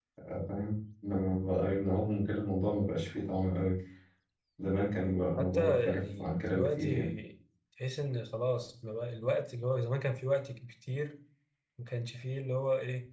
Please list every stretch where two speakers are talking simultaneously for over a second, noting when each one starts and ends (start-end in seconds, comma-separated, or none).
5.4-7.1